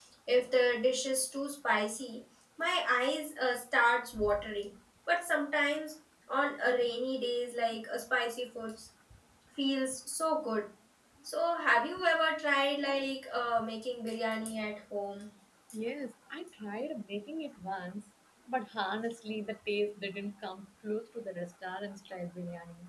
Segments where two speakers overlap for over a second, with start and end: none

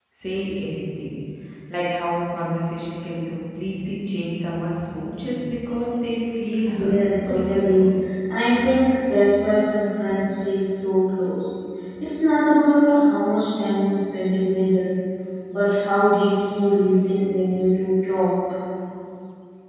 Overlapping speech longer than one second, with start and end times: 6.6-7.9

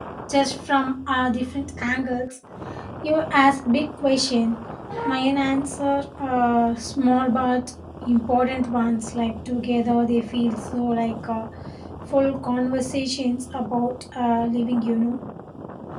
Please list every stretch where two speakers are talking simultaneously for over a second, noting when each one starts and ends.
none

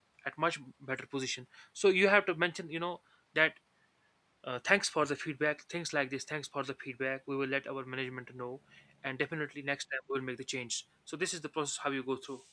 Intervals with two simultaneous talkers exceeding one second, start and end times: none

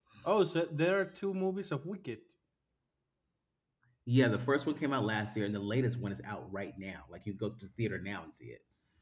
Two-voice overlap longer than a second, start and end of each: none

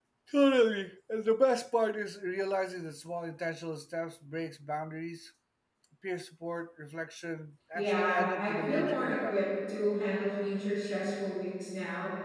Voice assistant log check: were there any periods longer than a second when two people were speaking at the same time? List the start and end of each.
7.7-9.4

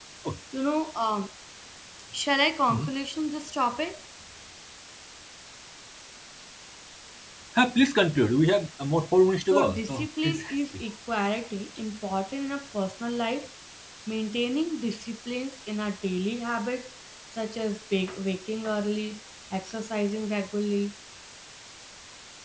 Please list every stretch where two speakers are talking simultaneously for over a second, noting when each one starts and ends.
9.5-10.8

